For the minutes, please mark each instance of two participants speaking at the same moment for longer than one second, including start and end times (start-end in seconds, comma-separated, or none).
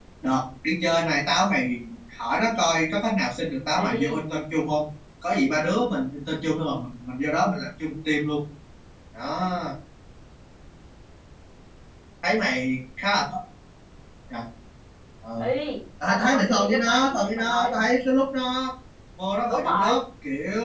16.1-17.7